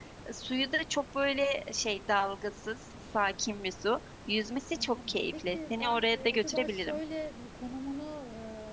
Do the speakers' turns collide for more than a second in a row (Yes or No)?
Yes